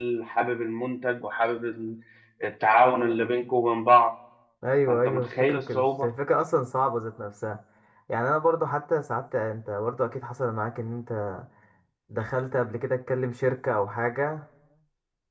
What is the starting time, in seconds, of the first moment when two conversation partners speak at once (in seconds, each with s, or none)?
4.9 s